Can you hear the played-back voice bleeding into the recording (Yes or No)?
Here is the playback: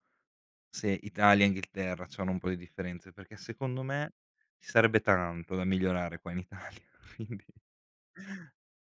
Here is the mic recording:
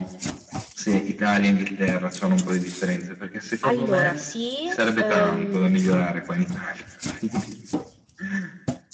Yes